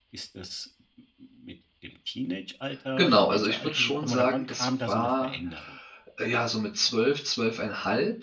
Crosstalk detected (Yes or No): Yes